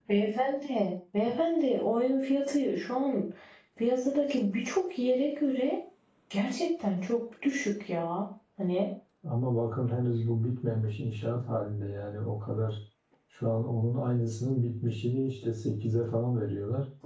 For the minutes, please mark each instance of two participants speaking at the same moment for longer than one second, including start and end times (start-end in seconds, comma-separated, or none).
none